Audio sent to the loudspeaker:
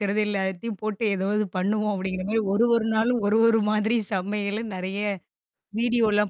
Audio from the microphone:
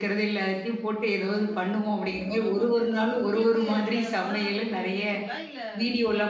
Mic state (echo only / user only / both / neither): both